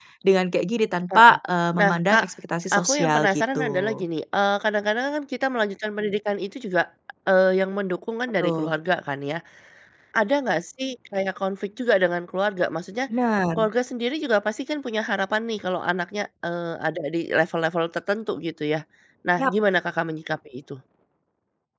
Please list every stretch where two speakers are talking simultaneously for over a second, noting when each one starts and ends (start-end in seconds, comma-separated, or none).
2.7-4.0